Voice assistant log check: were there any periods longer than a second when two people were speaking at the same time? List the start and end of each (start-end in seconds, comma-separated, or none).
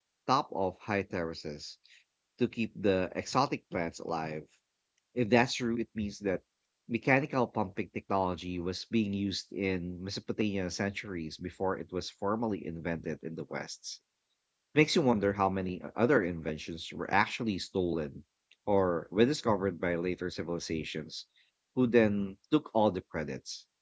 none